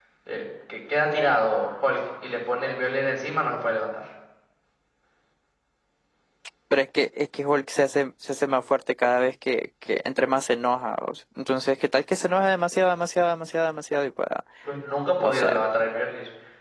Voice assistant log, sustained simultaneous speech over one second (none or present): none